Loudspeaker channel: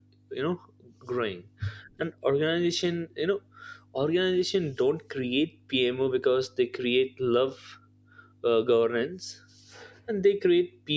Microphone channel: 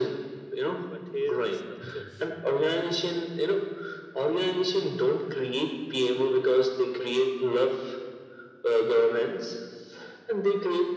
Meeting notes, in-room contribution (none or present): present